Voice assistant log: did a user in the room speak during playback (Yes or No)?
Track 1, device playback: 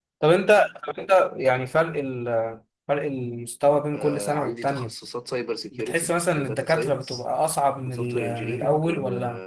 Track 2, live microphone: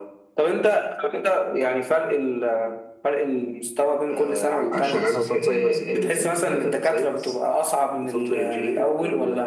Yes